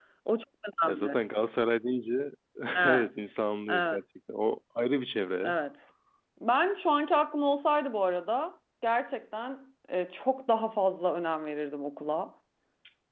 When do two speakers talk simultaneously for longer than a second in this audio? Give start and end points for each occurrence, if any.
none

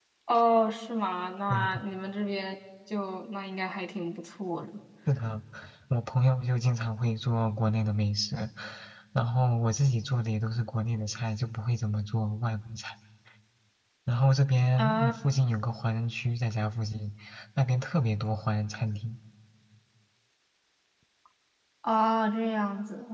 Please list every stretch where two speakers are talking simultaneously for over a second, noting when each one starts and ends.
none

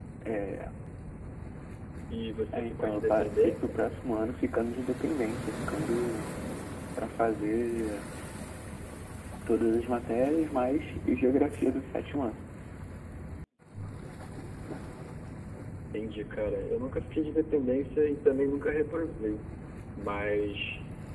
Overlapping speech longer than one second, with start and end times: 2.5-3.8

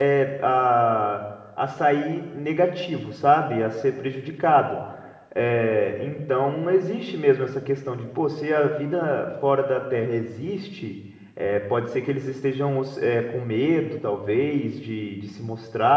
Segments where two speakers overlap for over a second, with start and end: none

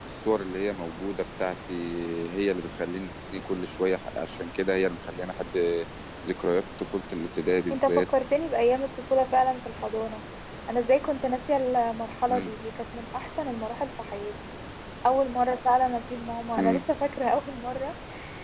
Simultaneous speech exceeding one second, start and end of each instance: none

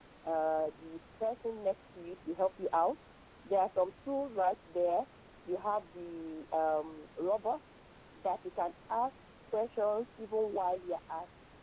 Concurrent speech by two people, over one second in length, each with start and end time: none

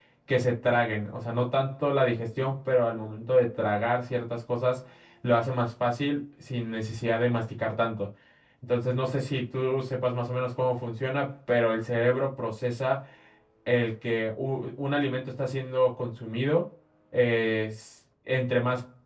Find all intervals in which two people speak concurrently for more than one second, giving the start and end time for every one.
none

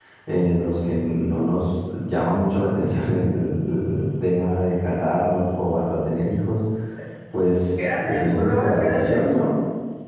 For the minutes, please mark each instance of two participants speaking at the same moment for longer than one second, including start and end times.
8.0-9.5

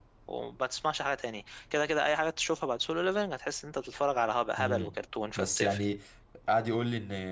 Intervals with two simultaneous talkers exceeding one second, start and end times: none

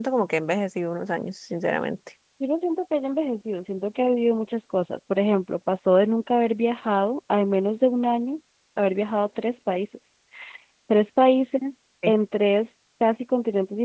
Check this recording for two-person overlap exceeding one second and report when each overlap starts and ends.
none

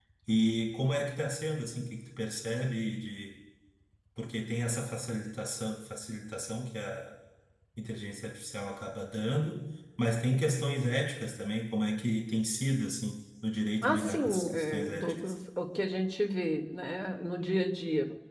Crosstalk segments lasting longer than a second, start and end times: 13.8-15.2

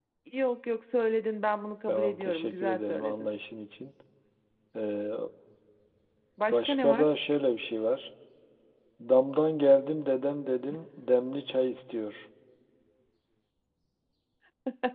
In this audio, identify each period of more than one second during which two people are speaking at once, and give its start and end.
1.9-3.3

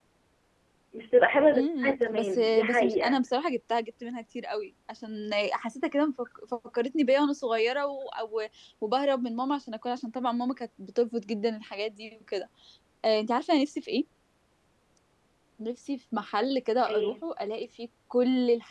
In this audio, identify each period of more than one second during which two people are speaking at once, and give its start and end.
1.5-3.2

